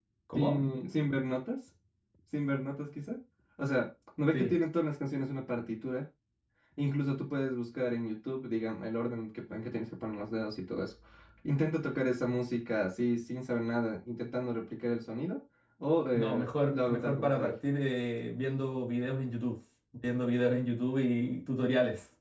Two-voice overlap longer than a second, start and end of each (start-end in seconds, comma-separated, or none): 16.1-17.5